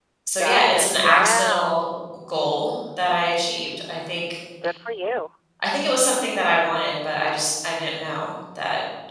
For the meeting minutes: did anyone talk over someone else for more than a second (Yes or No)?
Yes